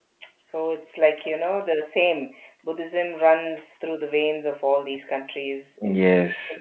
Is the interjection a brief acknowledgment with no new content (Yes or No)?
No